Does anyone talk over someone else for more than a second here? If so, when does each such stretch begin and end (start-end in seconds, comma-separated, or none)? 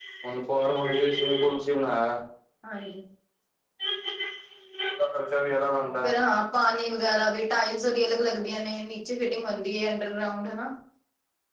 none